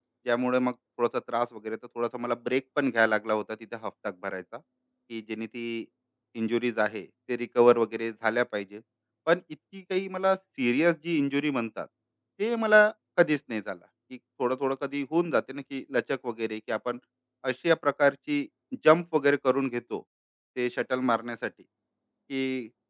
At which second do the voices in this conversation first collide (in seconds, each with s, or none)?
none